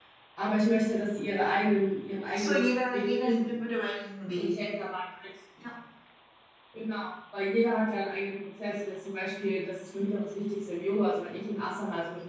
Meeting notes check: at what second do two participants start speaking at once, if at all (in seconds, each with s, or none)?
2.3 s